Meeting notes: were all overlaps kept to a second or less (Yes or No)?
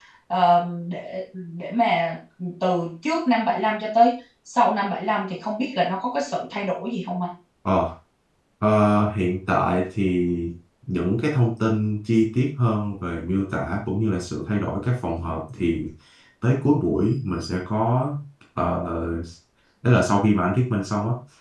Yes